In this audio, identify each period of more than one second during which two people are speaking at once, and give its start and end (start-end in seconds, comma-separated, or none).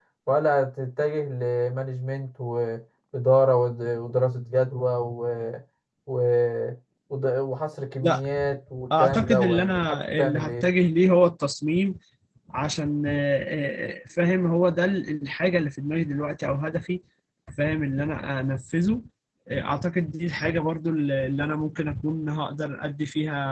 9.0-10.6